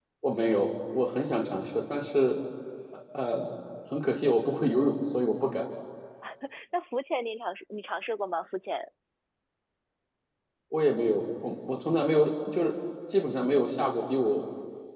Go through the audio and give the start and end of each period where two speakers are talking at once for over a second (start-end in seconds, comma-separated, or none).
none